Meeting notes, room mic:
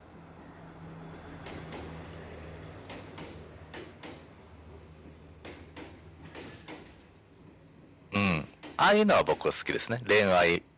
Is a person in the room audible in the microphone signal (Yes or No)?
Yes